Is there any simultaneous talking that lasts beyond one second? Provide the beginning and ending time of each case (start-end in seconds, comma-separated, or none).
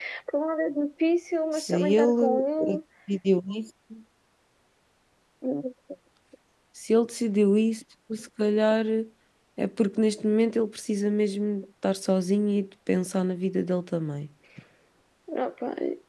1.5-2.8